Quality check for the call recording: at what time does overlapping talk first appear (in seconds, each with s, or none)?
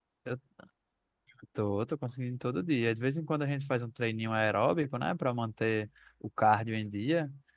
none